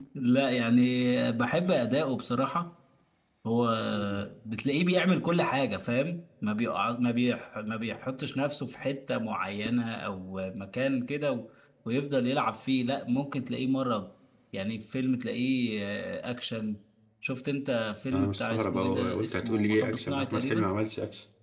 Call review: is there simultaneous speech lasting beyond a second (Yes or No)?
Yes